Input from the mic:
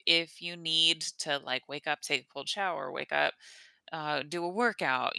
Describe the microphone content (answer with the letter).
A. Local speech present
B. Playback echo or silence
A